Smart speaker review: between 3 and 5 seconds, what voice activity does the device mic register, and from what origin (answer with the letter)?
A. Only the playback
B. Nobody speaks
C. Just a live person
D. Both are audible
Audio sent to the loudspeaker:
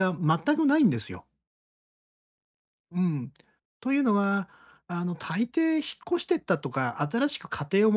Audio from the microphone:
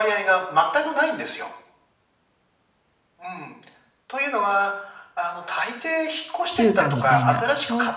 A